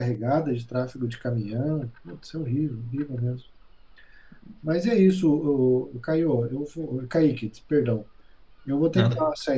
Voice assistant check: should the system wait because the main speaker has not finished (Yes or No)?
Yes